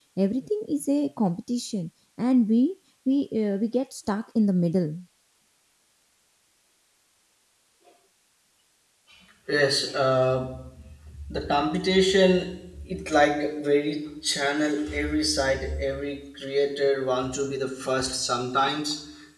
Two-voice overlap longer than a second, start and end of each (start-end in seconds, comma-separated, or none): none